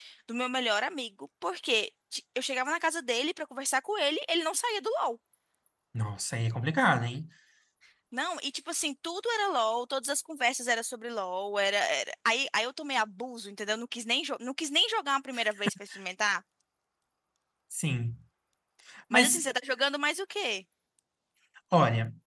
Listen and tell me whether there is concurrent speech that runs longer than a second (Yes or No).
No